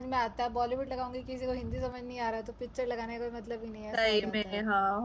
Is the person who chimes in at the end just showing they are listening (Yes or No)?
No